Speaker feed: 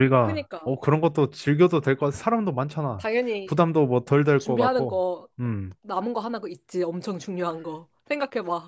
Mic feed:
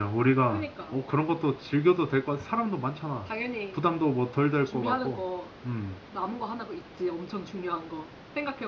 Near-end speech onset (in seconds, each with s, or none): none